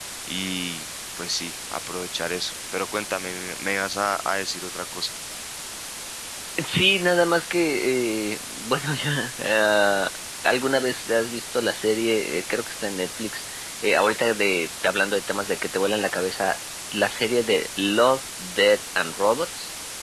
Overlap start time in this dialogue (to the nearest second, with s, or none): none